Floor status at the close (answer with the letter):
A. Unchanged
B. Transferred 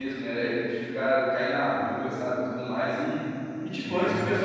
A